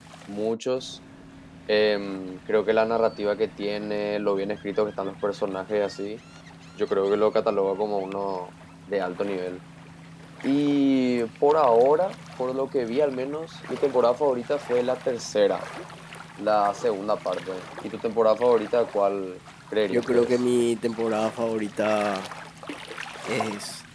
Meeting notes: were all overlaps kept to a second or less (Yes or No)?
Yes